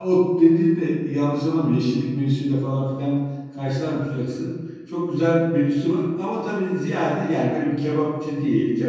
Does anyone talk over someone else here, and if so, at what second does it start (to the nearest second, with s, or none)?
none